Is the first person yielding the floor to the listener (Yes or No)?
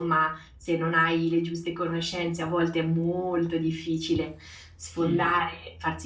No